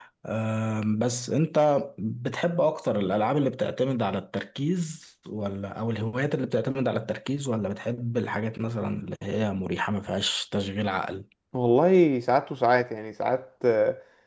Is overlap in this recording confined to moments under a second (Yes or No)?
Yes